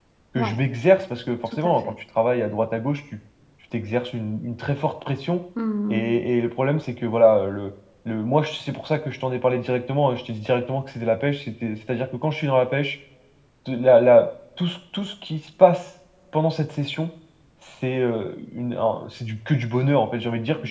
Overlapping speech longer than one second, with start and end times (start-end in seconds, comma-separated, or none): none